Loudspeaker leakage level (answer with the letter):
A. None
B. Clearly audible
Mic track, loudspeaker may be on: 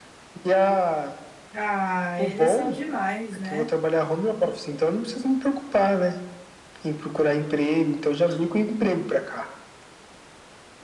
B